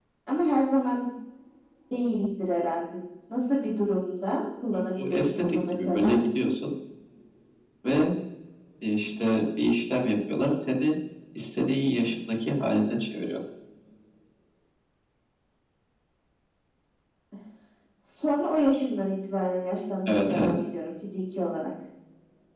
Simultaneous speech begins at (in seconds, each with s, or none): 5.0 s